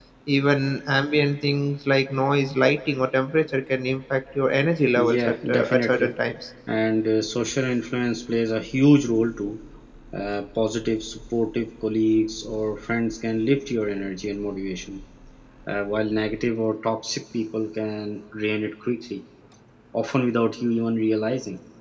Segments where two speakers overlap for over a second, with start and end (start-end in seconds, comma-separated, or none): 5.0-6.2